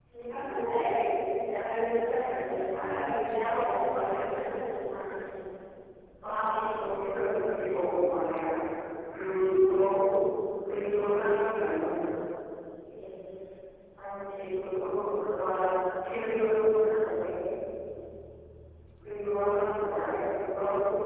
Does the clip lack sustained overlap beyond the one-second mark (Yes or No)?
Yes